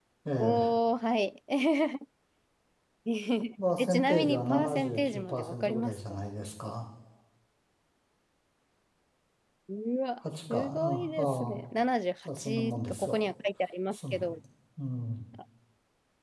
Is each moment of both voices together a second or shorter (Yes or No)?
No